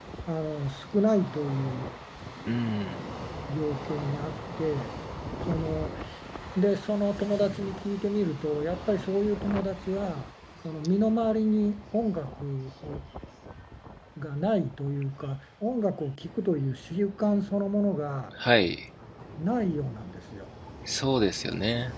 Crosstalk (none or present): none